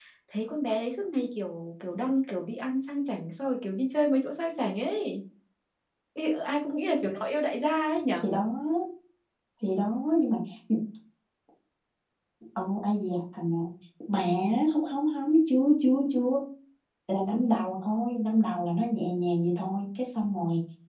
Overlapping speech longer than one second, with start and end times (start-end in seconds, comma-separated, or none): none